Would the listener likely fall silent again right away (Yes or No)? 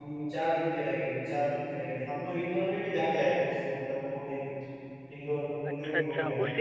No